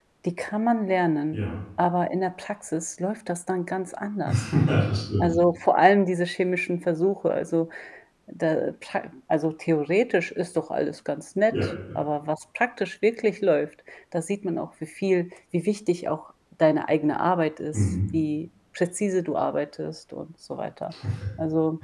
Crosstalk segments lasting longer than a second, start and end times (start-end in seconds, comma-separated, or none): none